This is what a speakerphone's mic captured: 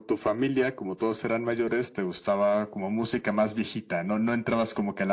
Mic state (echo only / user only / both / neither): echo only